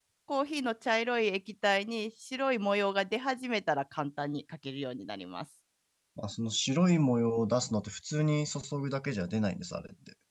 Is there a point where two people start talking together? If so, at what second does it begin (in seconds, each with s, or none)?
none